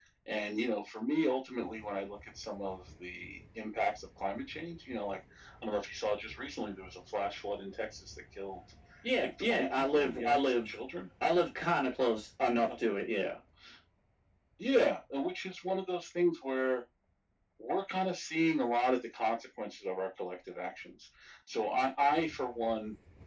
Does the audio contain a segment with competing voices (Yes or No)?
Yes